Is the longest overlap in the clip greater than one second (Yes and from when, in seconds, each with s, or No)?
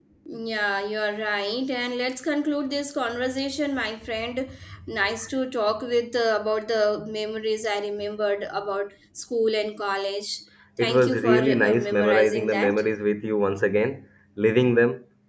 Yes, from 10.8 s